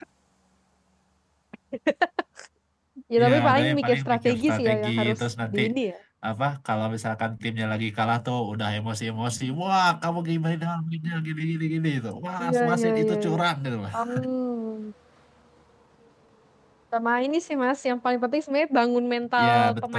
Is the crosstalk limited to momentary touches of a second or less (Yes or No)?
No